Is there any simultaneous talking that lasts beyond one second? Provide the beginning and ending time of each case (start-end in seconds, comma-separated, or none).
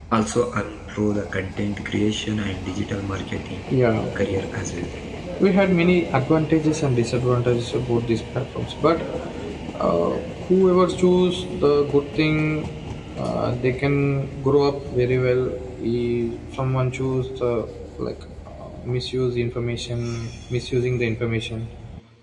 none